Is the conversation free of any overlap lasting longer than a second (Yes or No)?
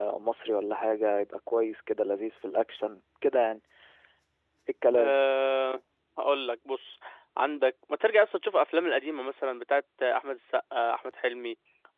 Yes